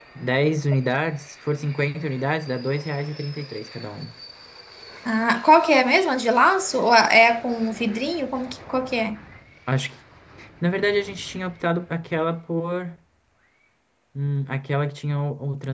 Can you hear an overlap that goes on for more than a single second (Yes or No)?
No